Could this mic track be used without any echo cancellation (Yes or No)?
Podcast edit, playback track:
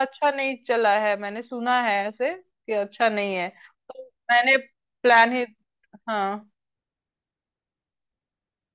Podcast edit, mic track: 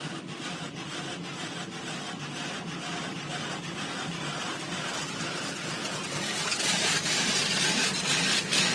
Yes